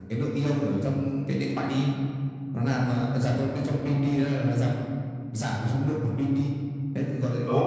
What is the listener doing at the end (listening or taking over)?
taking over